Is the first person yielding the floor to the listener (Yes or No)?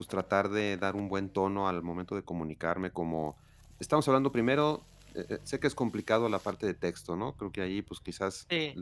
No